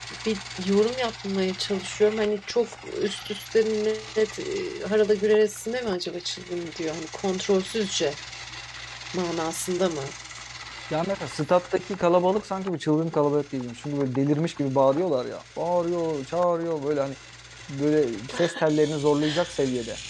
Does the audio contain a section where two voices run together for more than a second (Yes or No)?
No